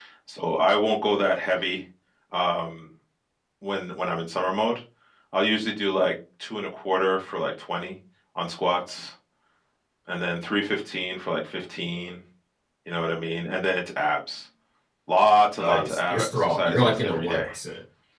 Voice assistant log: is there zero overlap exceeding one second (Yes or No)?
No